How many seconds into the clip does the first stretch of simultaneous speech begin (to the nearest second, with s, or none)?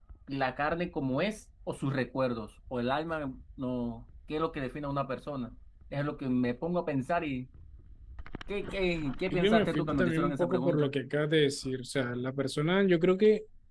9 s